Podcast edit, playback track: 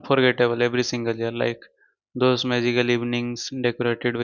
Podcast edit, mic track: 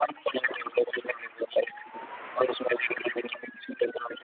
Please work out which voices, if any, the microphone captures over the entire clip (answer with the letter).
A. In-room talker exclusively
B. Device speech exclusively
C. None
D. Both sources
B